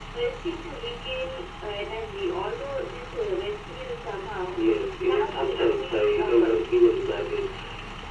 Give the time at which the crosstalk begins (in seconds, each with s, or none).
5.1 s